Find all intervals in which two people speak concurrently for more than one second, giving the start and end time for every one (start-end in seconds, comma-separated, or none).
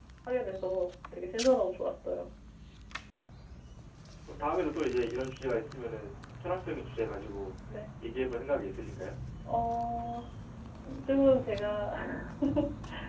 none